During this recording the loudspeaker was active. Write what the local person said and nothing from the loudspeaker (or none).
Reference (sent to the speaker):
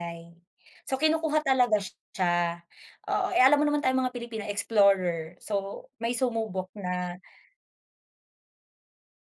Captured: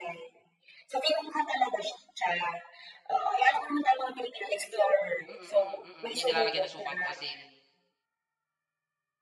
Mm, mm, mm, yung nilalagay ng suka at asin.